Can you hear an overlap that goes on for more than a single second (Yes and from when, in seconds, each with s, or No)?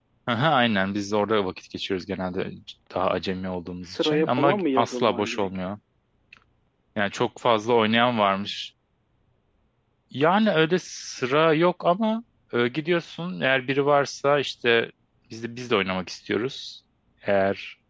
Yes, from 3.8 s